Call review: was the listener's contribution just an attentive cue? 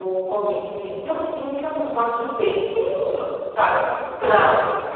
No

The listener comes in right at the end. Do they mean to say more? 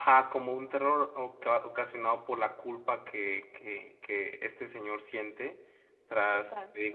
No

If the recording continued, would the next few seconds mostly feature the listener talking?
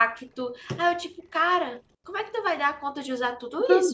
Yes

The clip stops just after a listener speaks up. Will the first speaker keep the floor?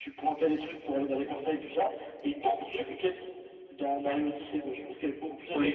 No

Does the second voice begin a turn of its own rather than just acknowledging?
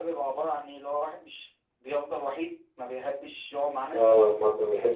Yes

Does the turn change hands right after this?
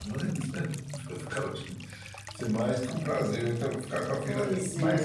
No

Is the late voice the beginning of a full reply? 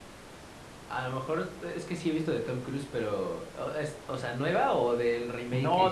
Yes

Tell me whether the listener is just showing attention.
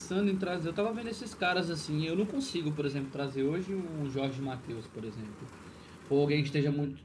Yes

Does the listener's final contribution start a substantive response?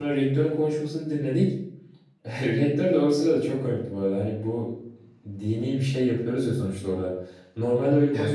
No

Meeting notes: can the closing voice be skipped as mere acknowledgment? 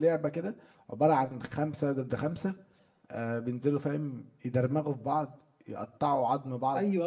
No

